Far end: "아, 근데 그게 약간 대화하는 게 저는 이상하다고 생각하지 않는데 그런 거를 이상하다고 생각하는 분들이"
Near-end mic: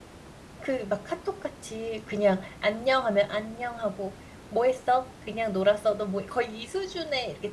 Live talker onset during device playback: 1 s

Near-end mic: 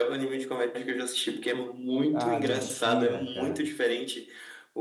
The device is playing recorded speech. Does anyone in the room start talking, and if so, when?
2 s

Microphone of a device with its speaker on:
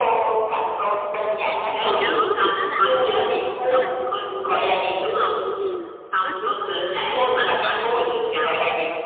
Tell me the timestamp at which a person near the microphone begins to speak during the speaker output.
2 s

